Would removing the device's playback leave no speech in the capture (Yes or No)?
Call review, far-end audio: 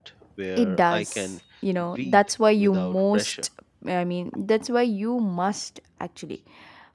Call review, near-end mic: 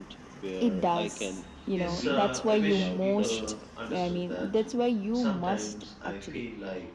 No